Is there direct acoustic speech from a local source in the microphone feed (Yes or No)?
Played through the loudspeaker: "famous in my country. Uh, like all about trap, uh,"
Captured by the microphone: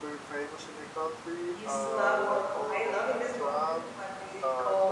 Yes